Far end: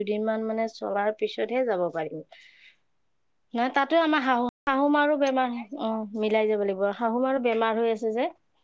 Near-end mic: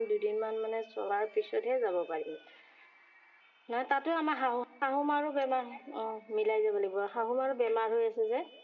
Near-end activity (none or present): none